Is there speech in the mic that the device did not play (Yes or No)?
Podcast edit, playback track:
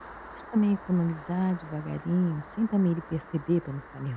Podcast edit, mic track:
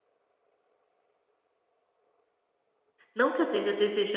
Yes